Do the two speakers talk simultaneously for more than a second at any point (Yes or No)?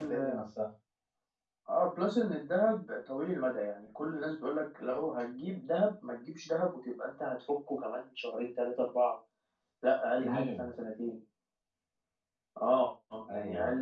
No